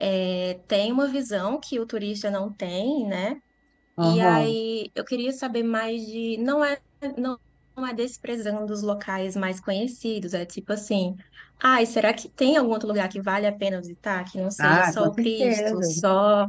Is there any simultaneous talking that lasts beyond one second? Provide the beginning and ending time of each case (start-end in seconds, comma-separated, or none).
14.6-15.9